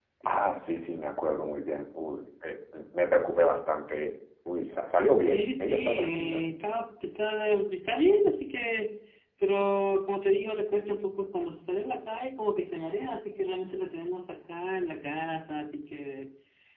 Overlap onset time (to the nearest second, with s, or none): 5 s